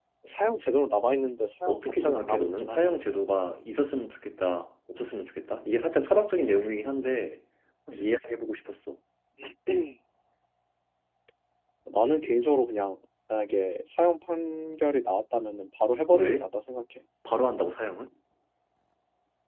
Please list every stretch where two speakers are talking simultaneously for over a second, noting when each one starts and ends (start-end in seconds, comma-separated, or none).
1.7-3.0